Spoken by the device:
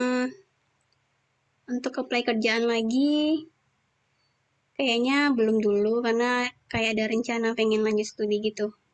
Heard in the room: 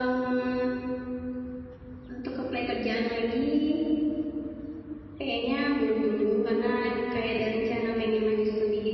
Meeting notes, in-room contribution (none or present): none